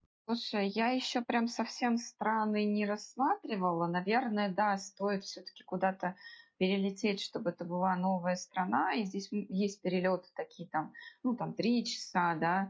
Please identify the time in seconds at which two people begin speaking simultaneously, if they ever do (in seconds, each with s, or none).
none